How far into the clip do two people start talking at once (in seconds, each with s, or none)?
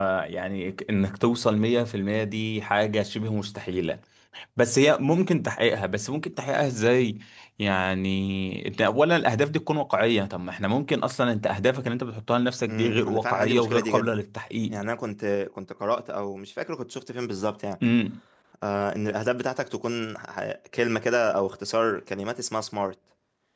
12.7 s